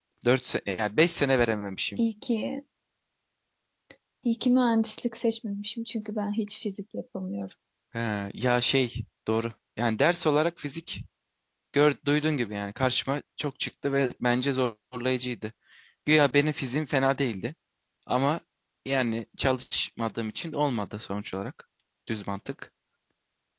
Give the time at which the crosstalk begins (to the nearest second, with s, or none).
none